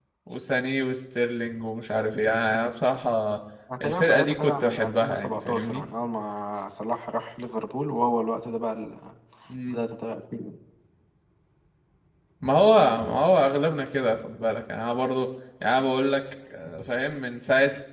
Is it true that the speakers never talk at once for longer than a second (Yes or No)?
No